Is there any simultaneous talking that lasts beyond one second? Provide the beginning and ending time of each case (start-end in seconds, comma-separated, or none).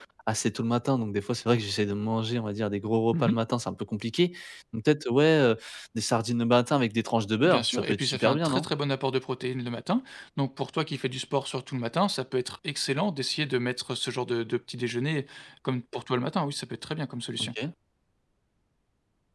7.4-8.7